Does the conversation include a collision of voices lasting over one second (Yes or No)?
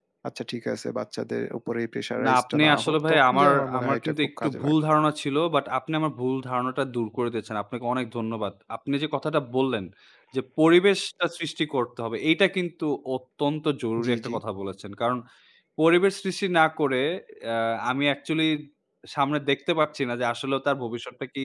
Yes